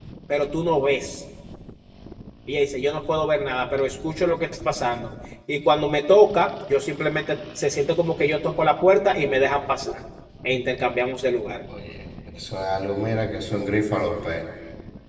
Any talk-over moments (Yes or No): No